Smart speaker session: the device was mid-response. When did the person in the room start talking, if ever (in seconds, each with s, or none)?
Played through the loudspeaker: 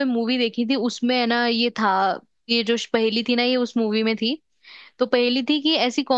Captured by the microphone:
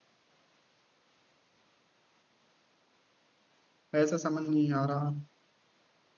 4.0 s